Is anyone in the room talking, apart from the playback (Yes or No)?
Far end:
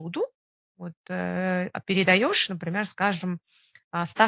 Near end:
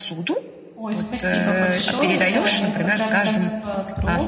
Yes